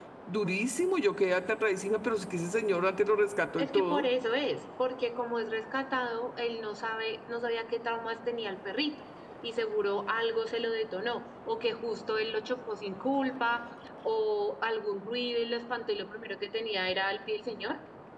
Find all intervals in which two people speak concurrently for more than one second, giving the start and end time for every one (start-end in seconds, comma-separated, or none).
none